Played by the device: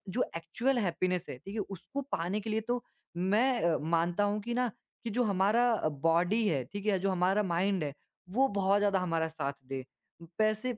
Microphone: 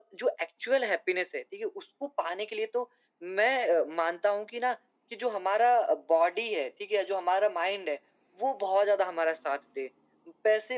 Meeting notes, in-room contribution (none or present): none